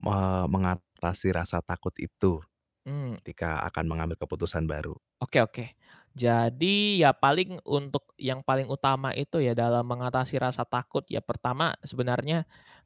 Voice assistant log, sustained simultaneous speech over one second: none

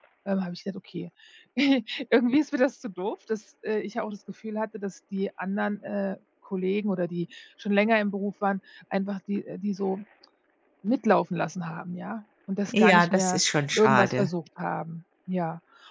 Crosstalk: present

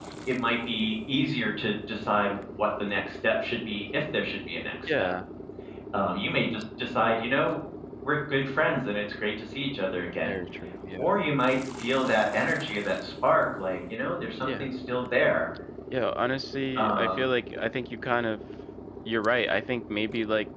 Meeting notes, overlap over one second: none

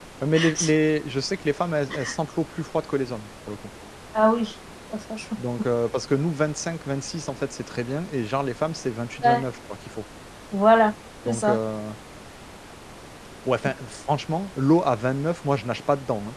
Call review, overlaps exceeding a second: none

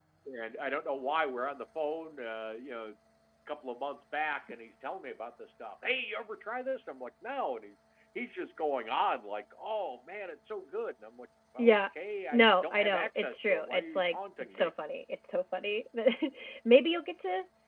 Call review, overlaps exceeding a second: present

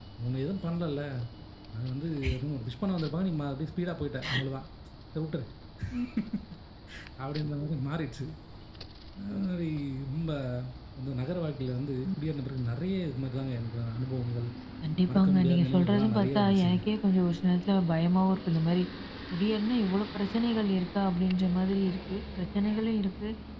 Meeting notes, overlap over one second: present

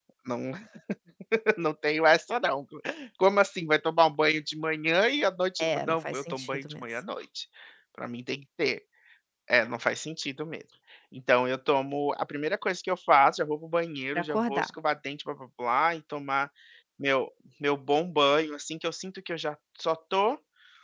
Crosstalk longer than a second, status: present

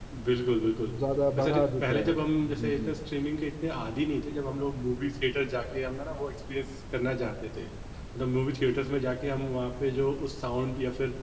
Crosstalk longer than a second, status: present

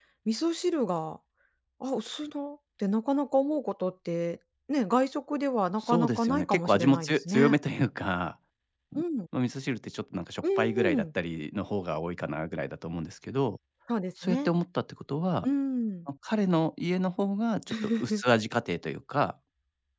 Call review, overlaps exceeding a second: present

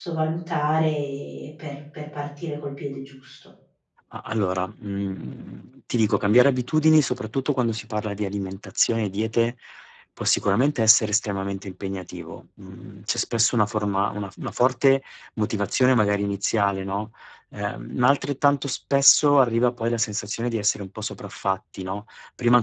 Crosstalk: none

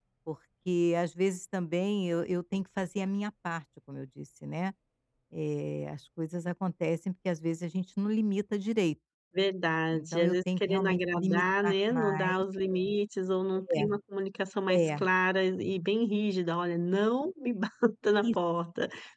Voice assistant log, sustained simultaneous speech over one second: present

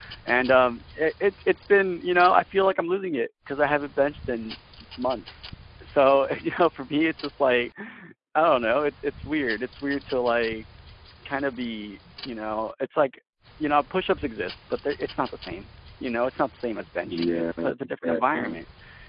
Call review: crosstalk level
present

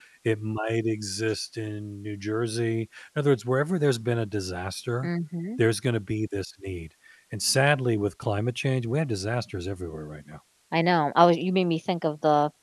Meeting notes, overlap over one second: none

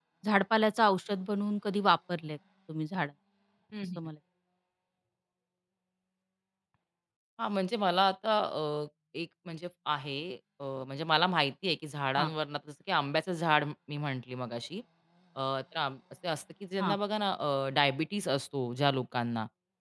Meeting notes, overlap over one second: none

